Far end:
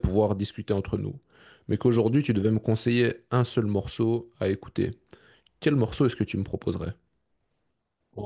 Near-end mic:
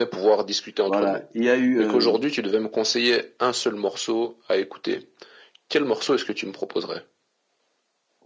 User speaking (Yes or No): Yes